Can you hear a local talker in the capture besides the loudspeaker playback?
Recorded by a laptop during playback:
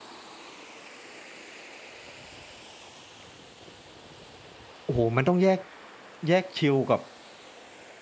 Yes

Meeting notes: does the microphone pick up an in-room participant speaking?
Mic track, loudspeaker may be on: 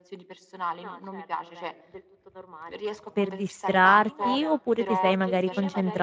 Yes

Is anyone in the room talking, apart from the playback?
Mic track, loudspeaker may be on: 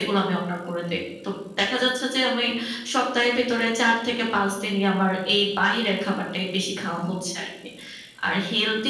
No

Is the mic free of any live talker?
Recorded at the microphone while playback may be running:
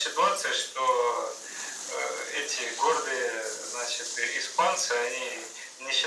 Yes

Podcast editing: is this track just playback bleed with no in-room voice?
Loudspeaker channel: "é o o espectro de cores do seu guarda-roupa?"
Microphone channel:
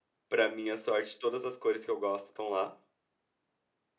No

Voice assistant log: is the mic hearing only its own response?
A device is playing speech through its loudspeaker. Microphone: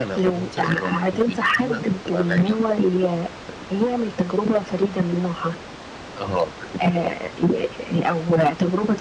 Yes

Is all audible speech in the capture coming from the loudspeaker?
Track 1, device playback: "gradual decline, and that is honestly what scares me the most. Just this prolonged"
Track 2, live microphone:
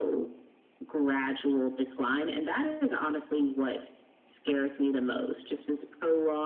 Yes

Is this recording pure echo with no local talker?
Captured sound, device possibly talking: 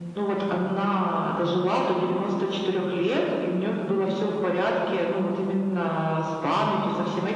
Yes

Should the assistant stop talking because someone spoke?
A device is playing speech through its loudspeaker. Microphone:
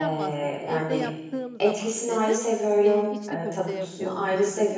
Yes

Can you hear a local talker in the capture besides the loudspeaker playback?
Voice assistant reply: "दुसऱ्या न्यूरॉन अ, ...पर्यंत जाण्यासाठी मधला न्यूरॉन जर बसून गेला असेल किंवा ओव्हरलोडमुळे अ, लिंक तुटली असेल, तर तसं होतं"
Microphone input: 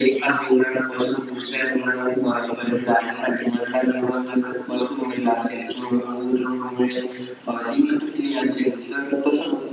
No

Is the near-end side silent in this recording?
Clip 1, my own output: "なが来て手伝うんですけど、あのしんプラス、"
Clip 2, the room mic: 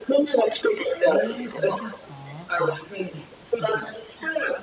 No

